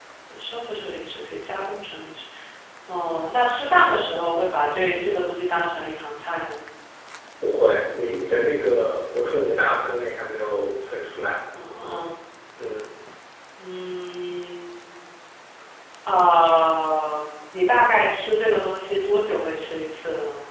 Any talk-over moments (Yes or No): No